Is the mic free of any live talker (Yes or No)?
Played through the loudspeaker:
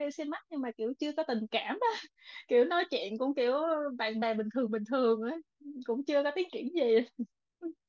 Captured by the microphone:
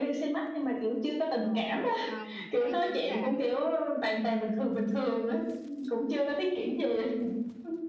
No